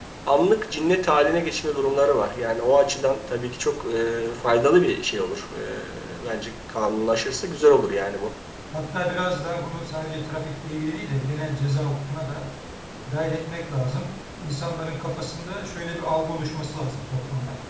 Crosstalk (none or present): none